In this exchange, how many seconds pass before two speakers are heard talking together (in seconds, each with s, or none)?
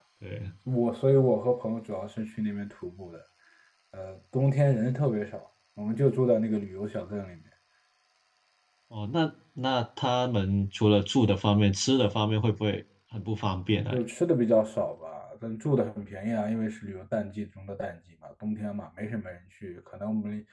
none